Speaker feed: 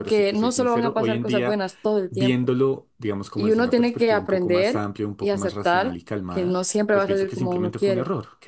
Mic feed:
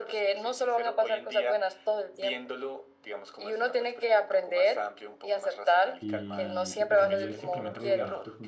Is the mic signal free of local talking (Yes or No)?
No